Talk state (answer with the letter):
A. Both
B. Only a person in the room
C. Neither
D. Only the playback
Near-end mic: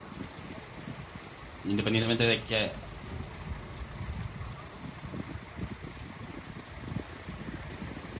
B